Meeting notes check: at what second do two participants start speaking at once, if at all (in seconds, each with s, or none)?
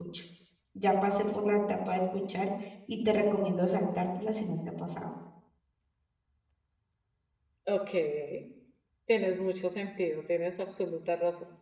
none